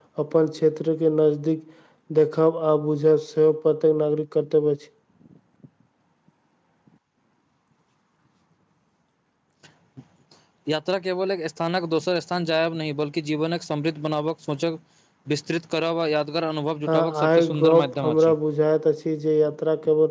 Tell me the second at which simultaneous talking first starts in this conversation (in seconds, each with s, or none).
16.9 s